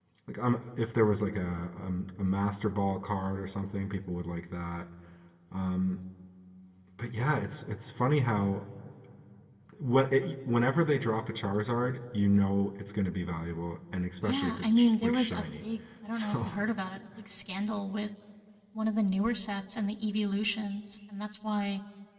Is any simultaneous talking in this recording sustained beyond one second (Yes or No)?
Yes